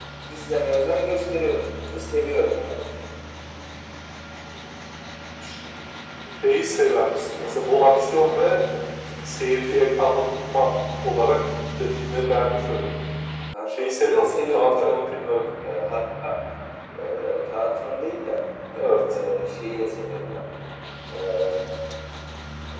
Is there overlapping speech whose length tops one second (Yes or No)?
Yes